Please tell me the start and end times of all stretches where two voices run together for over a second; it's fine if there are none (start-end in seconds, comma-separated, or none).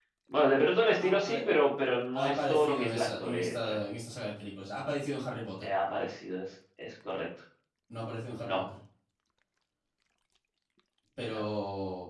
2.1-3.8